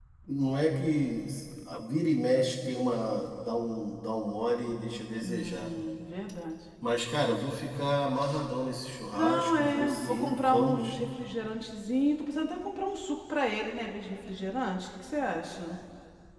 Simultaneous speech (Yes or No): Yes